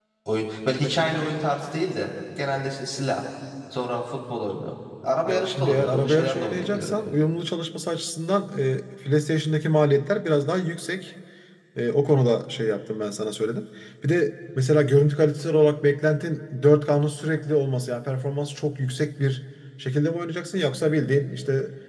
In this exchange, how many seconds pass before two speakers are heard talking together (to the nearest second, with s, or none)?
5 s